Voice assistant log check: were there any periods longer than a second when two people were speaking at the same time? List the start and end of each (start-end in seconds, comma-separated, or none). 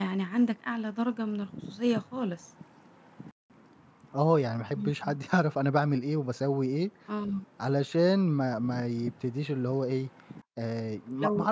none